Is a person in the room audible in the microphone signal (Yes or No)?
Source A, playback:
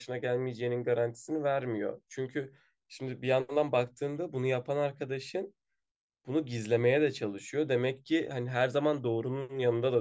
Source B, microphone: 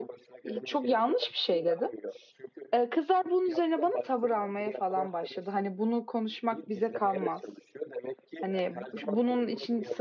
Yes